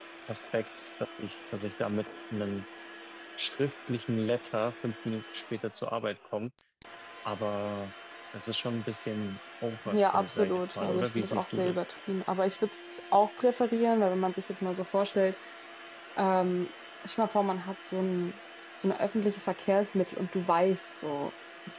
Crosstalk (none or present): present